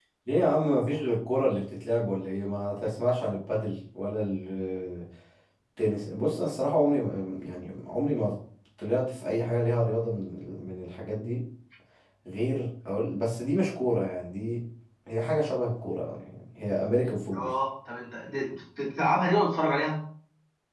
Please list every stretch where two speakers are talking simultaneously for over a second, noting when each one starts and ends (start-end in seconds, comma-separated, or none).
none